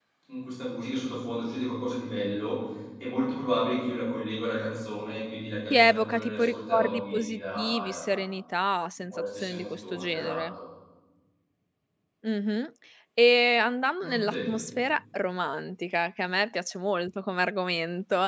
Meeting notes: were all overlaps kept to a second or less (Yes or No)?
No